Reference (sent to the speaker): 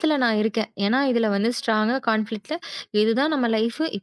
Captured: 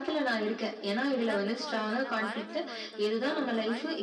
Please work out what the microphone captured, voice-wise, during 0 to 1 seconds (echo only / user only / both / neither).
echo only